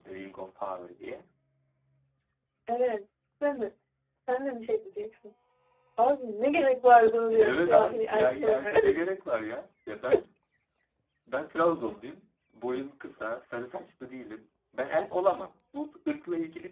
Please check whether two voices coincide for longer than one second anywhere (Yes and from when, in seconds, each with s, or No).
Yes, from 7.3 s